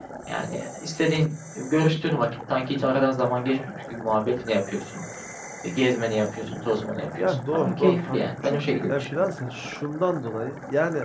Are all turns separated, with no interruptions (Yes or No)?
No